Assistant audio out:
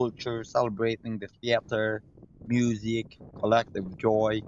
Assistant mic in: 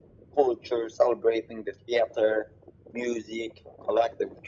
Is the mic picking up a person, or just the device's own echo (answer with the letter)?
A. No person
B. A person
A